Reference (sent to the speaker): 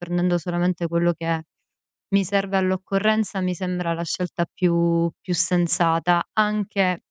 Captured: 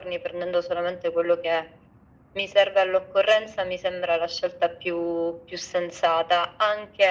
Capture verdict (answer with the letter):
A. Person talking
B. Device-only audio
B